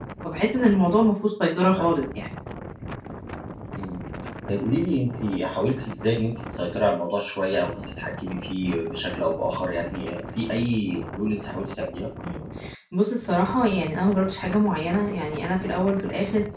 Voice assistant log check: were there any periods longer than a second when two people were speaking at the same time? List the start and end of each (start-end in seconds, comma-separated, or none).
none